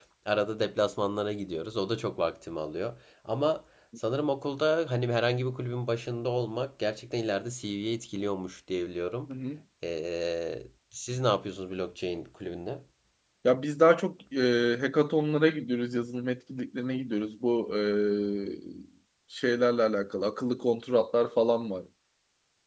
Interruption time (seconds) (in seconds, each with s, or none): none